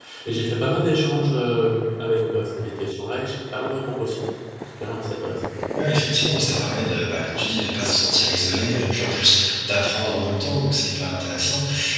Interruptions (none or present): none